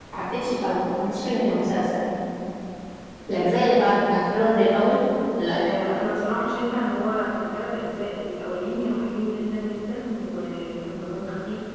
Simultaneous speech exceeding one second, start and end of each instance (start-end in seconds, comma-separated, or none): none